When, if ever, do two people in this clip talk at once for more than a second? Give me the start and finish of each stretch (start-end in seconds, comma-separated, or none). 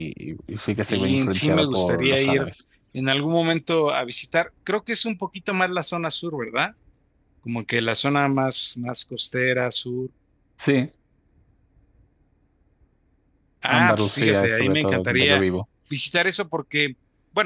0.9-2.5, 13.7-15.4